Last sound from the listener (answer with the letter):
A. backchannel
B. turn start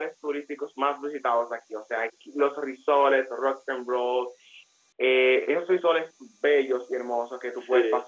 A